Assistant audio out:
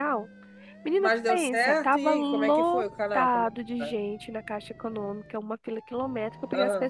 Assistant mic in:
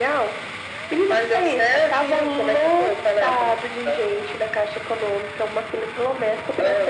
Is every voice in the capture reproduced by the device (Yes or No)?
Yes